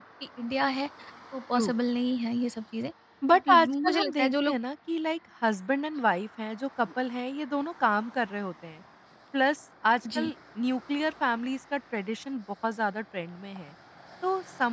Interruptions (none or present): present